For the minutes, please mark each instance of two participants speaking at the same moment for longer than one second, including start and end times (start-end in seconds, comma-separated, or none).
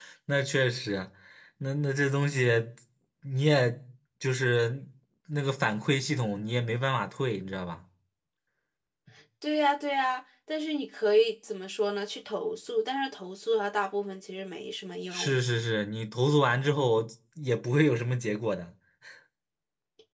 none